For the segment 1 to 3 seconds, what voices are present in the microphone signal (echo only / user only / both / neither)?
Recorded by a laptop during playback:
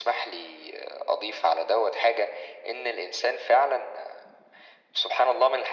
echo only